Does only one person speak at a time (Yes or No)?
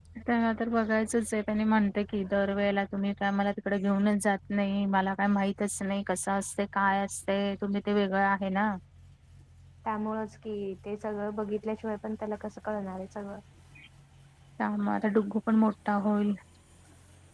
Yes